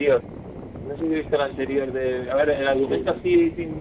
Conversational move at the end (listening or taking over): listening